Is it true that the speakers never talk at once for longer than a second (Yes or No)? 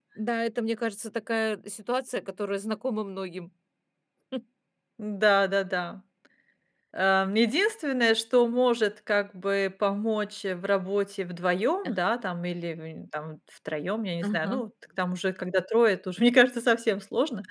Yes